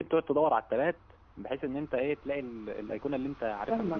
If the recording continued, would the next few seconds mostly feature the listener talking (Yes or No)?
Yes